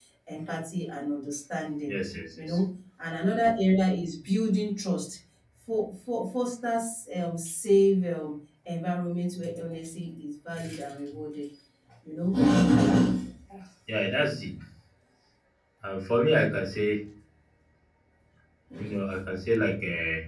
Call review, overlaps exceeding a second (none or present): none